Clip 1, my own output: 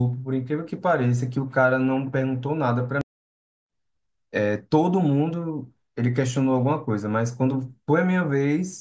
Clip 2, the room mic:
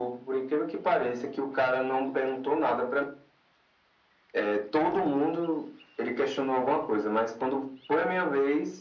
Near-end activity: none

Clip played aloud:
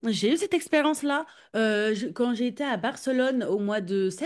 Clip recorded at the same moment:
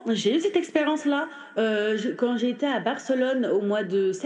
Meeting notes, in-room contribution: none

